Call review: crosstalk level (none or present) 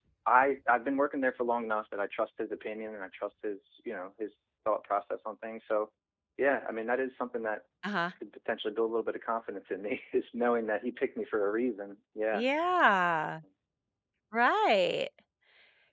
none